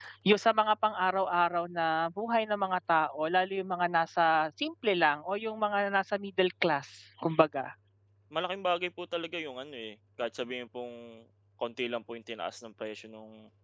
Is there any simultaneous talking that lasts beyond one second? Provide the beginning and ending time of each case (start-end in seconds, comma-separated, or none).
none